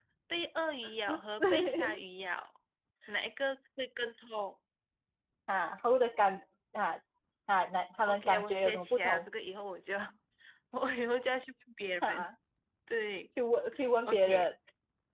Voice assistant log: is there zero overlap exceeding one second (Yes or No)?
No